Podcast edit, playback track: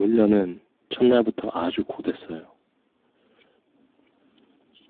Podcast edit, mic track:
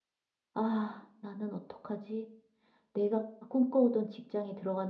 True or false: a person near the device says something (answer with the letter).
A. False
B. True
B